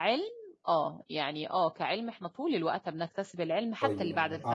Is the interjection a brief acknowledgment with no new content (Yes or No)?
No